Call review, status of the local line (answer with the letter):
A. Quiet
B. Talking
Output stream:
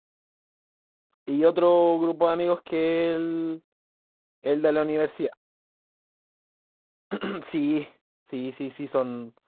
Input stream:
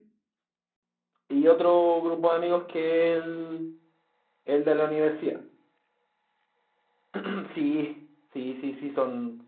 A